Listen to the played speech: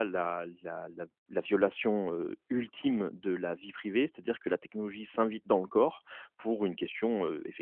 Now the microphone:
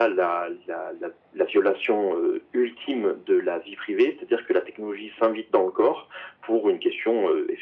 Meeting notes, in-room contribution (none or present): none